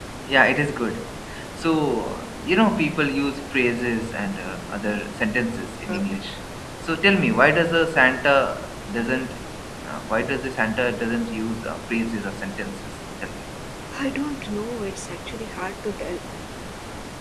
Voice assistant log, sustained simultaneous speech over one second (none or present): none